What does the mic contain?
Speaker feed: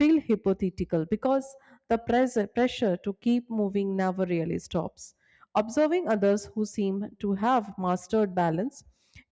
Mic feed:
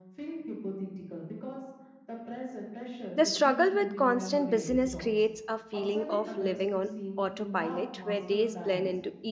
both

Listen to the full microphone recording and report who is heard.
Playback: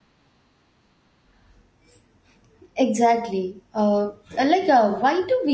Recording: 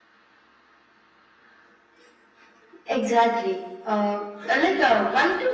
echo only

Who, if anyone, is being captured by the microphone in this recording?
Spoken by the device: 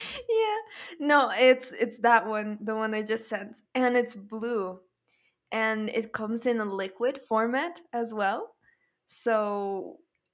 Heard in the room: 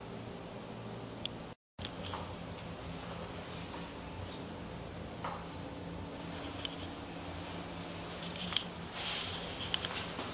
neither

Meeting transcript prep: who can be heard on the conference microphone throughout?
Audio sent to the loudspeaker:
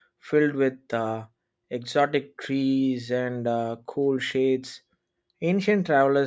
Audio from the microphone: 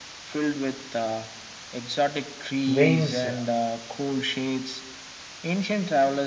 both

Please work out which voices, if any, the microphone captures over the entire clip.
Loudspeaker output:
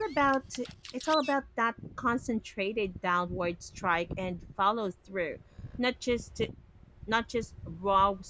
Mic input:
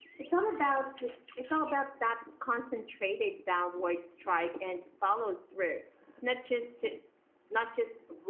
echo only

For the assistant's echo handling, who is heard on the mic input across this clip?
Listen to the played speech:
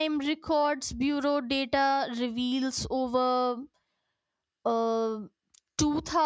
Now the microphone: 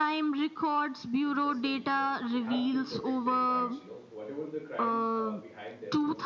both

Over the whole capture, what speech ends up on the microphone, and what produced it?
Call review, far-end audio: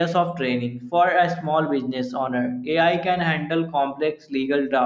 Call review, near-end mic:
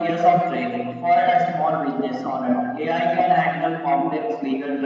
echo only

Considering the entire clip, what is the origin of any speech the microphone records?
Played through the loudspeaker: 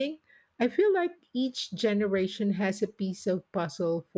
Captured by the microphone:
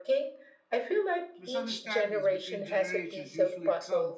both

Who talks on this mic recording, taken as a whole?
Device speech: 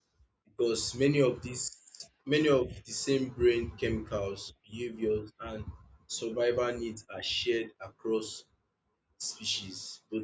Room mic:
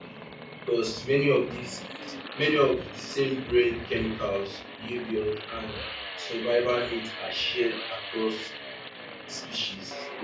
echo only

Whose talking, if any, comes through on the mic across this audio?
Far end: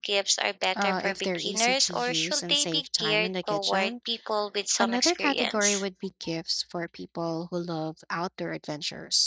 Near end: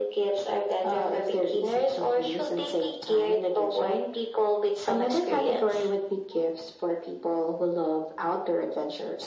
echo only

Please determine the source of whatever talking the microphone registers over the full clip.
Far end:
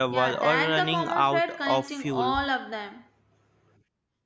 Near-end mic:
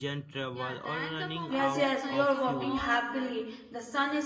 both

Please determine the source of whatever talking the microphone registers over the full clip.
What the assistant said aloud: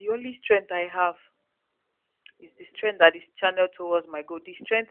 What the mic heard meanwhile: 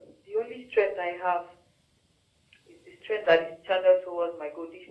echo only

